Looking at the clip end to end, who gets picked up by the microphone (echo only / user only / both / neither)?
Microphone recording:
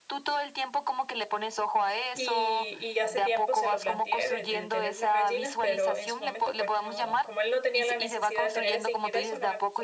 both